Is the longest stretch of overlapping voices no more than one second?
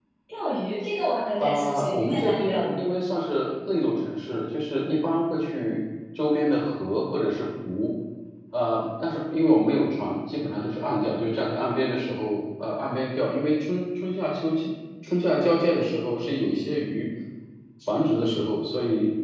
No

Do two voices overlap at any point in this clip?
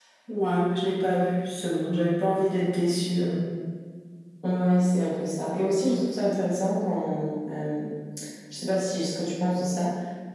No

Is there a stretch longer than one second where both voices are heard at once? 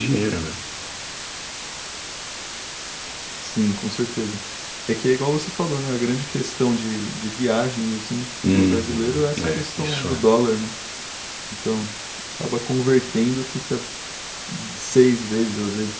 Yes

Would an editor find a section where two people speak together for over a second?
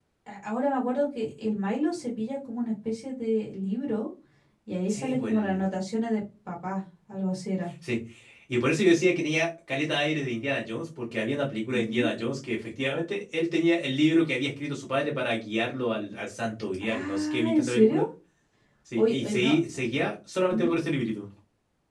Yes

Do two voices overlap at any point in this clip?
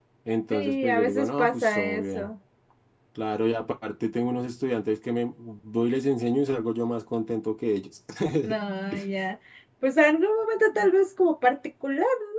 Yes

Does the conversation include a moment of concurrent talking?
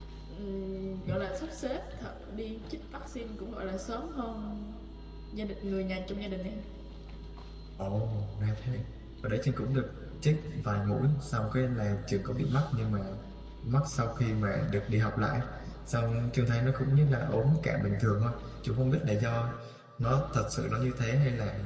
No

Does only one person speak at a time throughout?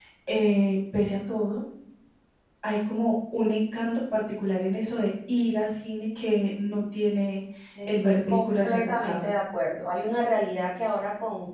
No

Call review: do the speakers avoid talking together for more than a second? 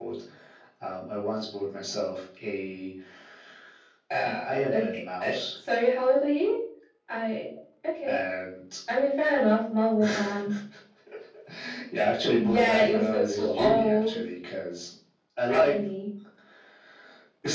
No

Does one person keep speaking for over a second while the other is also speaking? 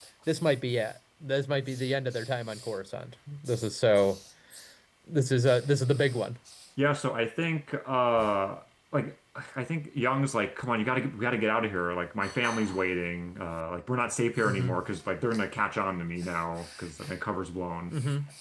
No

